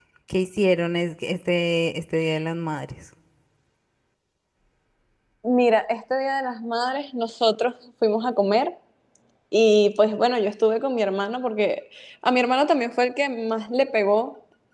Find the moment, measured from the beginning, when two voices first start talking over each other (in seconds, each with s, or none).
none